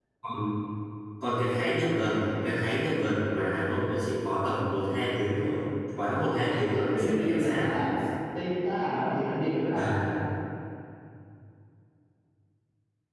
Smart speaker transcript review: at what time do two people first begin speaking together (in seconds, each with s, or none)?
6.3 s